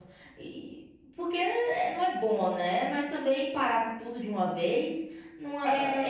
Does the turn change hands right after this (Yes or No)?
Yes